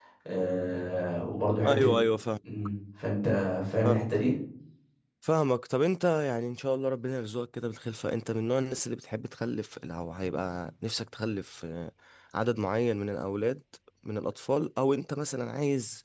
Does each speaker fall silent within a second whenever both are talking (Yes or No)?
Yes